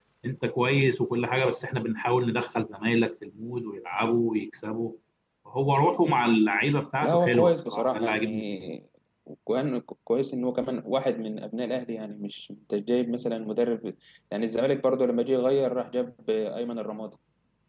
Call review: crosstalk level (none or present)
present